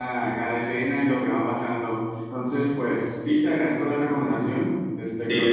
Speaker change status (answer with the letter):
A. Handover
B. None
B